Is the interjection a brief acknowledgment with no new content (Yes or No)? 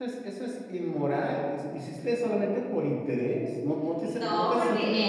No